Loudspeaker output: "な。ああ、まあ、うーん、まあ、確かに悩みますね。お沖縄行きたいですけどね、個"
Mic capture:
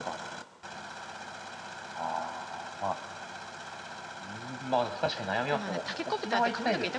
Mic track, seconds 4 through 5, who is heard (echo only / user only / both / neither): echo only